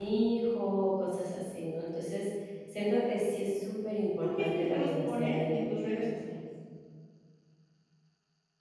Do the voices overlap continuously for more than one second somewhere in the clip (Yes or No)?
Yes